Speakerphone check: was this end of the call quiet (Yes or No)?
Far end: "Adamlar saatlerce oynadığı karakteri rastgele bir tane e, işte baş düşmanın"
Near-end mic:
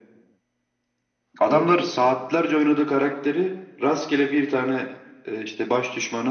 Yes